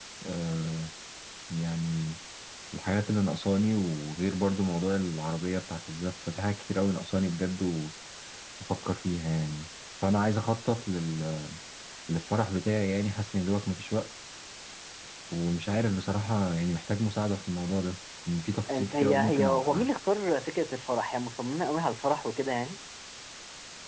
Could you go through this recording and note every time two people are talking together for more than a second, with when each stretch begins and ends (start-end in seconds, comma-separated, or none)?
18.7-19.9